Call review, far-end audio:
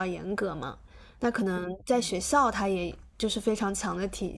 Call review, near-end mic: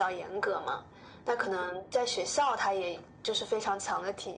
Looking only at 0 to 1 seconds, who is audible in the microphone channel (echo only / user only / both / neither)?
echo only